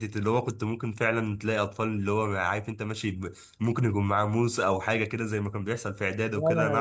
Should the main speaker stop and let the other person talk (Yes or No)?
Yes